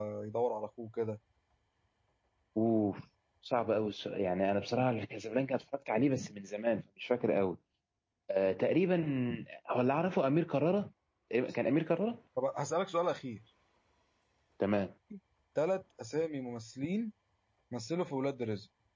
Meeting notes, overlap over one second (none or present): none